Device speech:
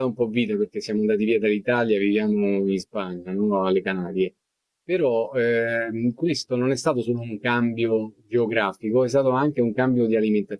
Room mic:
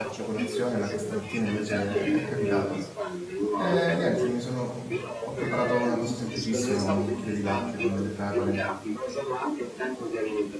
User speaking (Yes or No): Yes